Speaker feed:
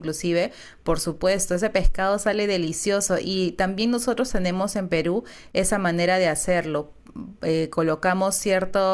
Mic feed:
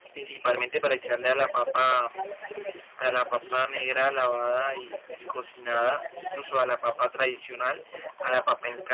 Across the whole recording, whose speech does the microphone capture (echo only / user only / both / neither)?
both